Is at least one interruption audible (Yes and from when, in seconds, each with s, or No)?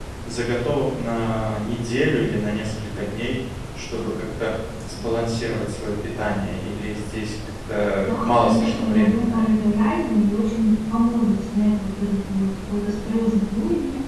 Yes, from 8.1 s